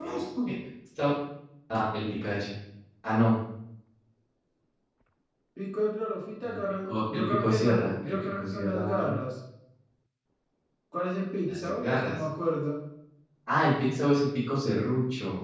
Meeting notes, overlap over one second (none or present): present